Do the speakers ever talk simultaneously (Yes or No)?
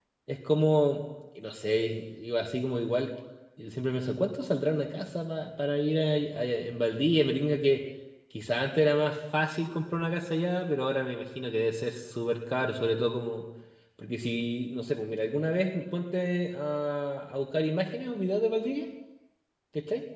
No